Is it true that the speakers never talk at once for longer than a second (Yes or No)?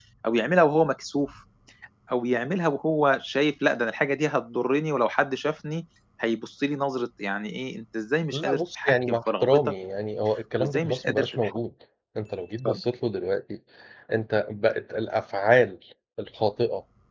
No